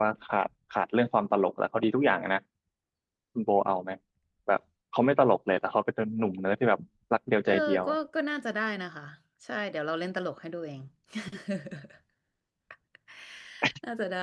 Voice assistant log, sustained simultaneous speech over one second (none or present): none